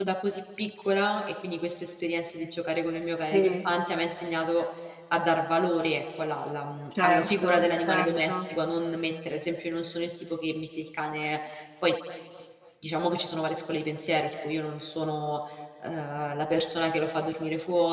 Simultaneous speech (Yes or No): Yes